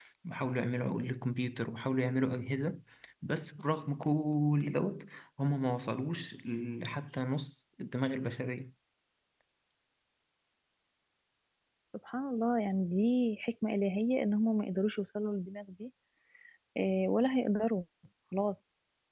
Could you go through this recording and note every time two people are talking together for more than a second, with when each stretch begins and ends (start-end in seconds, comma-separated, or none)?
none